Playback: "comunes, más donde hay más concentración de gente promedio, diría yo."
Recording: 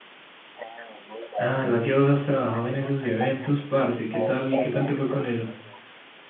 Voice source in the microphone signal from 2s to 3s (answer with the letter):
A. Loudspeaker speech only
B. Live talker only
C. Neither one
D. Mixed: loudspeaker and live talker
D